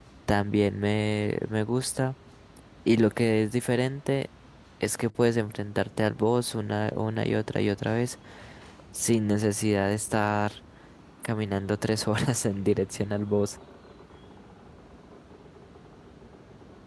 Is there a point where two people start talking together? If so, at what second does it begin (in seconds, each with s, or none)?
none